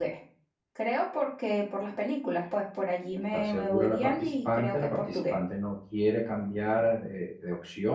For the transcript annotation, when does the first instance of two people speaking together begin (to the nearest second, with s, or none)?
3 s